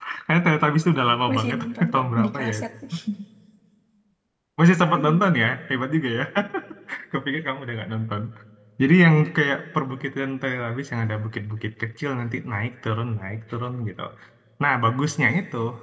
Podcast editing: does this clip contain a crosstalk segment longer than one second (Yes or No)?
Yes